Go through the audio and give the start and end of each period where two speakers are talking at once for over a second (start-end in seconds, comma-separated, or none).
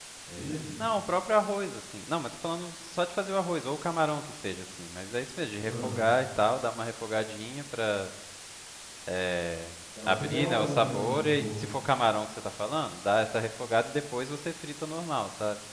10.1-11.6